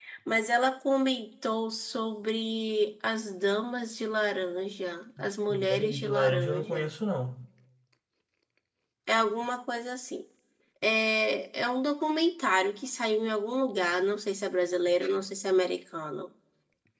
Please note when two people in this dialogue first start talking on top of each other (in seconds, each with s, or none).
5.5 s